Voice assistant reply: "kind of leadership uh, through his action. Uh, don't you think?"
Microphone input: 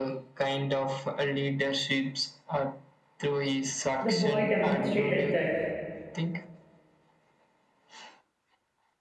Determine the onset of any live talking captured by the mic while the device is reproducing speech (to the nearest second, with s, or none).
4 s